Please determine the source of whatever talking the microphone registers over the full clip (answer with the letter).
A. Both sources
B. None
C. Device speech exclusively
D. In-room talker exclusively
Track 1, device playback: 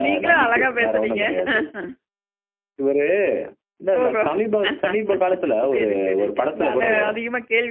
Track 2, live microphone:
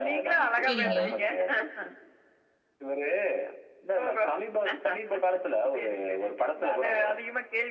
A